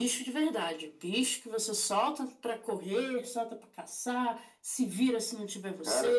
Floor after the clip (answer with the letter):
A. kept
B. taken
B